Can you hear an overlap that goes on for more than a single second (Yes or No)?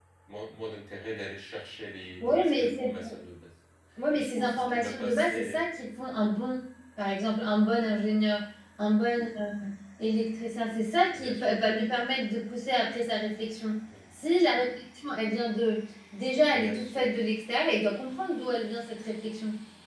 Yes